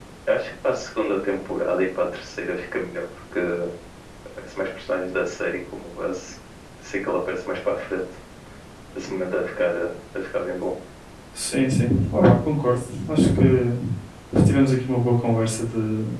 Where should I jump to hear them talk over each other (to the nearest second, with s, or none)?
none